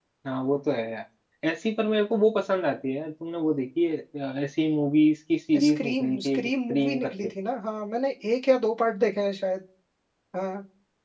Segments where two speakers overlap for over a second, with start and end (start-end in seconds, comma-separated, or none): 5.7-7.3